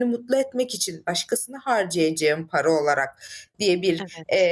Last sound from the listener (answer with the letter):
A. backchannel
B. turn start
A